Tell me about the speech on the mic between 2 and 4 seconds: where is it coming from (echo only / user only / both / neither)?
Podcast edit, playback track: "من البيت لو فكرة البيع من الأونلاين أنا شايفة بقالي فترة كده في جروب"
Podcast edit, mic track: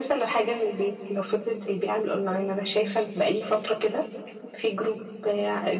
echo only